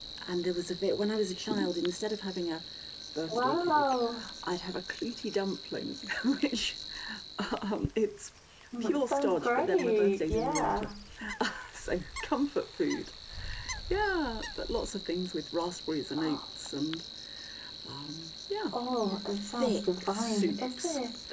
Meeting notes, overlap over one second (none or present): present